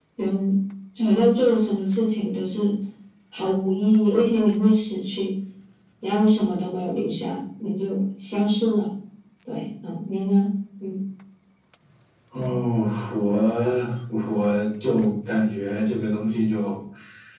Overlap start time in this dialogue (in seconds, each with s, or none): none